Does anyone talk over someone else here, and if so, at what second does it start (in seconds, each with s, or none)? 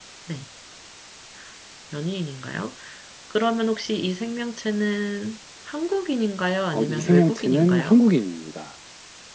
6.7 s